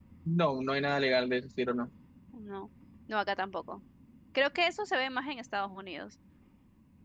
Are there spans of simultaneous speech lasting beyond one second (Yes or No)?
No